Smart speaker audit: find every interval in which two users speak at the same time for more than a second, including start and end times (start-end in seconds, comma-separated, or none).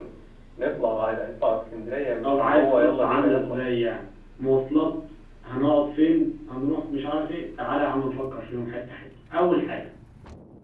2.2-3.6